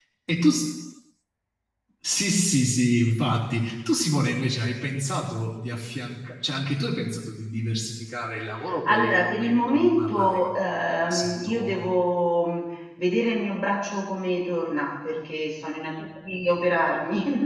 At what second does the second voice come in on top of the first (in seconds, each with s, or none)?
8.6 s